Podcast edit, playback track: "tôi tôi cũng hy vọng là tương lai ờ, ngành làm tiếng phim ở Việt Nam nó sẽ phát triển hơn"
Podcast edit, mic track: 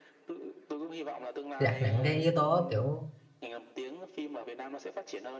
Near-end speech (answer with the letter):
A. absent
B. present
B